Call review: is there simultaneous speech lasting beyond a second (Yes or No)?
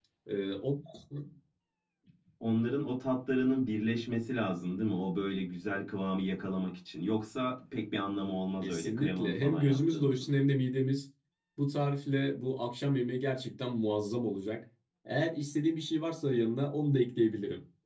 Yes